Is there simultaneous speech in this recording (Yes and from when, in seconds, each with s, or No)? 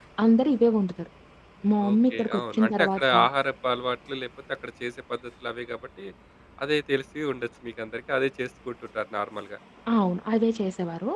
Yes, from 1.9 s